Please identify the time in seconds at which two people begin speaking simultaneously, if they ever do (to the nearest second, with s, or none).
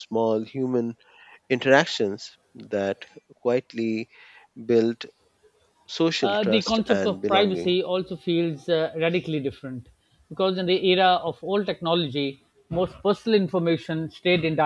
6 s